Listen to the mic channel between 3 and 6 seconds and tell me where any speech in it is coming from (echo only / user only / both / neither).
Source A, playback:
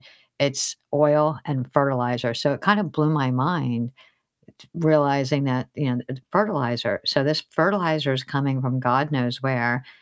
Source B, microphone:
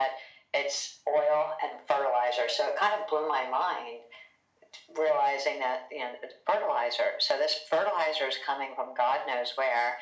echo only